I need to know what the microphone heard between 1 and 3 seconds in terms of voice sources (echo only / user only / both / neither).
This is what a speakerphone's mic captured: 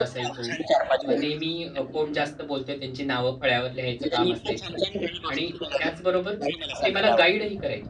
both